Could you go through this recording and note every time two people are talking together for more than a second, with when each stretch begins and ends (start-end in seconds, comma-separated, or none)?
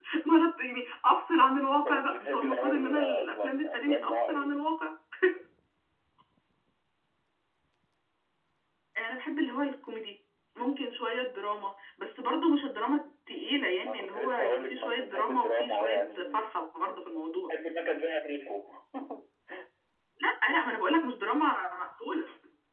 1.9-4.5, 13.8-16.4